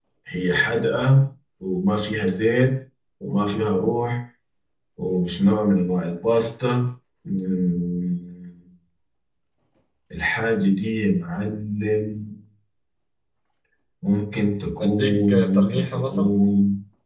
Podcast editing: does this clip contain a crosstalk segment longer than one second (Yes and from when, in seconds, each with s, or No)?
Yes, from 14.8 s